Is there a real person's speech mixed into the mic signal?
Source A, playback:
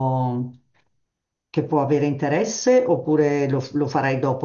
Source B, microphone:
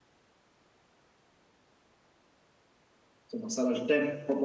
Yes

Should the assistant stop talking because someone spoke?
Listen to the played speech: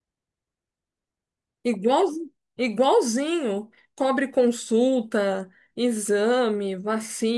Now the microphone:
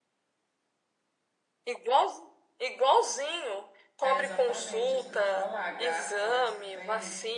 Yes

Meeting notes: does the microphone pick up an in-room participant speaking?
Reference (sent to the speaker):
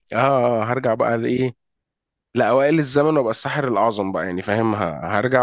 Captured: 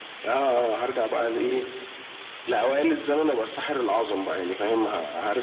No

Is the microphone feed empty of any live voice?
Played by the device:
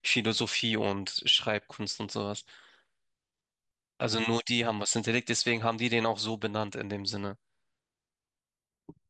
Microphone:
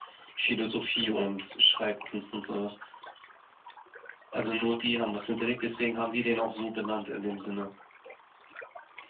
Yes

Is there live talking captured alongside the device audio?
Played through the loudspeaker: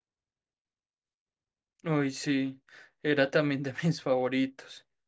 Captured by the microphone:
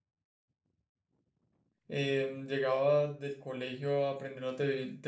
Yes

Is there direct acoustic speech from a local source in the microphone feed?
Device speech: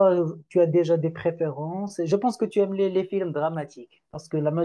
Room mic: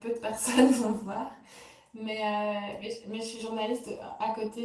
Yes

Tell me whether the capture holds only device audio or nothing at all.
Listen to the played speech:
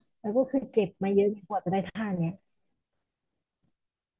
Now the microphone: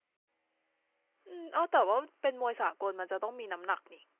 No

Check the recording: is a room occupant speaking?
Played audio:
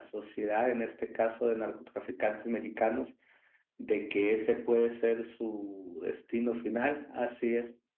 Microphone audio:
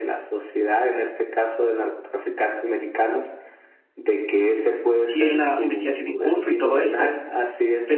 Yes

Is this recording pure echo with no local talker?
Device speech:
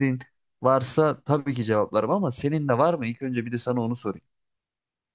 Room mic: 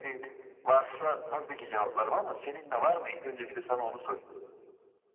Yes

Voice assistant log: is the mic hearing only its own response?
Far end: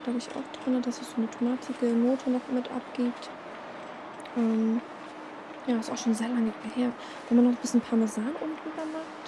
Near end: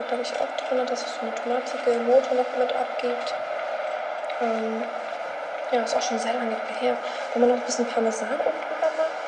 Yes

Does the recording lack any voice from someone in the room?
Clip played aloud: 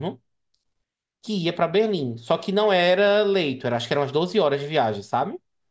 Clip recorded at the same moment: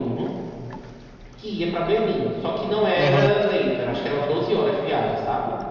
No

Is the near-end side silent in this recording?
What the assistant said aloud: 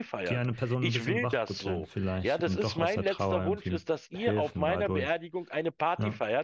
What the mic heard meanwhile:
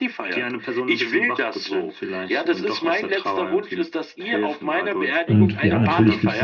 No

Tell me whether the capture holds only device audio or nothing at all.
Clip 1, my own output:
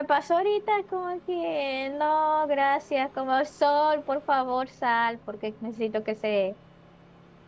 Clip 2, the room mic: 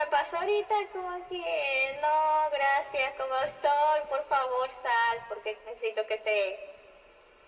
Yes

